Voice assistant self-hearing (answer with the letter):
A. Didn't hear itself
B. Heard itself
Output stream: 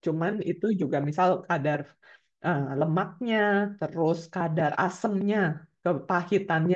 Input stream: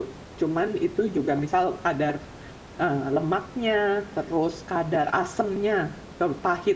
B